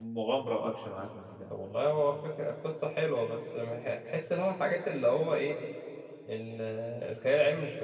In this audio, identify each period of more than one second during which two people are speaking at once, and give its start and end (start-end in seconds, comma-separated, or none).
none